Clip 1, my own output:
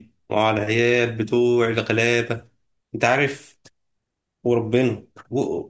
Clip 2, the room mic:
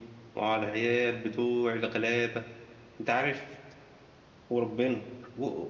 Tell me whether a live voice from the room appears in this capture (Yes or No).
No